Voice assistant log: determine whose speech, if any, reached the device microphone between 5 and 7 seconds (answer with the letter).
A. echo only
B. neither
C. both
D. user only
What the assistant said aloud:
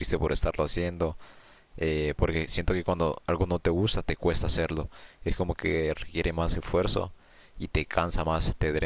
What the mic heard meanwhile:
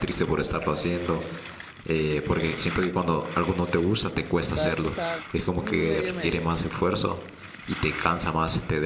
C